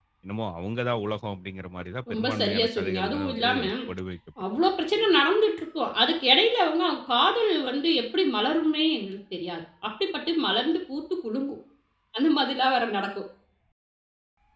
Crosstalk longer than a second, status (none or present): present